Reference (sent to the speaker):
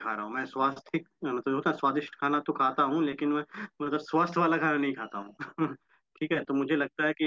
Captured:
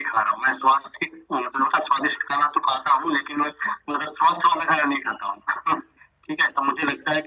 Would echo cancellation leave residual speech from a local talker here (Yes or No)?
No